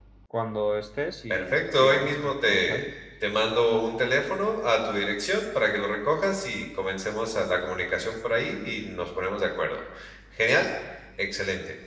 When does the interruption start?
1.3 s

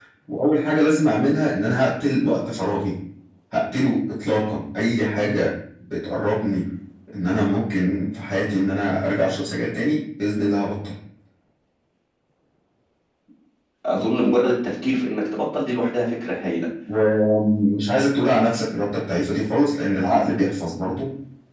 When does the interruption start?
none

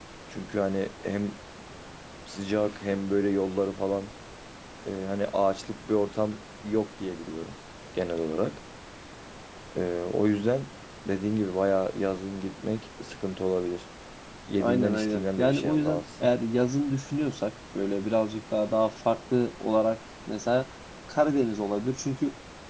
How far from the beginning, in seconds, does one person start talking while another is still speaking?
14.6 s

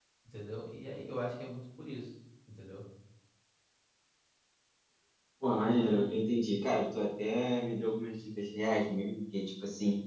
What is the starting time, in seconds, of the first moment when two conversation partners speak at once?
none

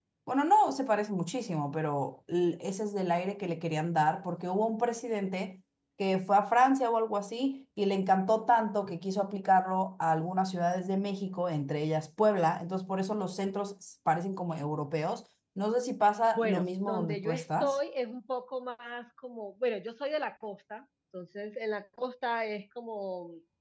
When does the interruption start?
16.4 s

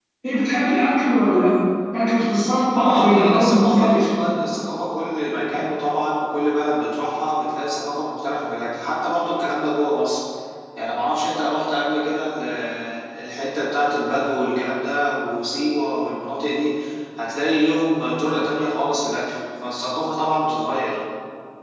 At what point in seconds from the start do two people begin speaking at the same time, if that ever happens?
2.7 s

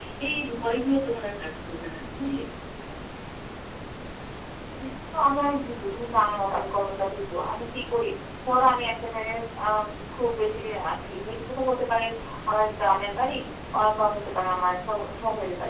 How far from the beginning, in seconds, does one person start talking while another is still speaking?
none

